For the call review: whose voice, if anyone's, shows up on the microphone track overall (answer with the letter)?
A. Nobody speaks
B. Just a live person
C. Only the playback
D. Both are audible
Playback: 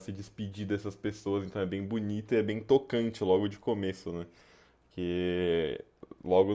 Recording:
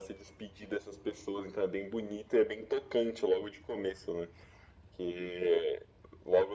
C